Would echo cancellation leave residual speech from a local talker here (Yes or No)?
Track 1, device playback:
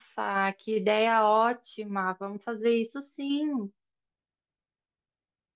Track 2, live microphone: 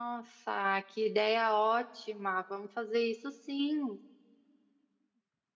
No